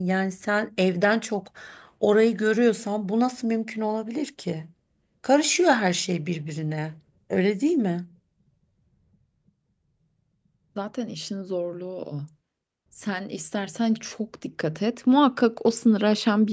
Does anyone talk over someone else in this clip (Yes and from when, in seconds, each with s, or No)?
No